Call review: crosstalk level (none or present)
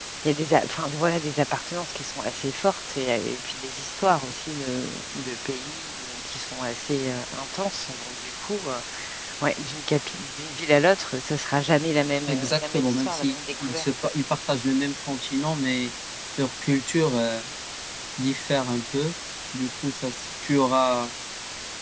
present